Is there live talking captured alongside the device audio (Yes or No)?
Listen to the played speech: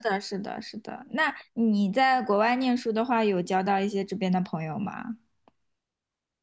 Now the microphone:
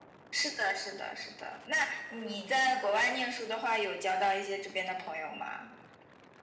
No